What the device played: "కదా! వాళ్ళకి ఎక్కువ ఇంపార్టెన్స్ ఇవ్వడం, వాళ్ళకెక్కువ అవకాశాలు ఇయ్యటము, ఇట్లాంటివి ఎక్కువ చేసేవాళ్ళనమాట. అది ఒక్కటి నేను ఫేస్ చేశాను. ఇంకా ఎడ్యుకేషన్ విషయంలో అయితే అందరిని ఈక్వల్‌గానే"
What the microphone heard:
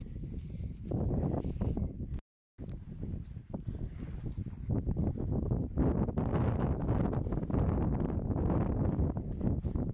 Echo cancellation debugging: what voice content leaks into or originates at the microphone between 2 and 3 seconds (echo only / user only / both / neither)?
neither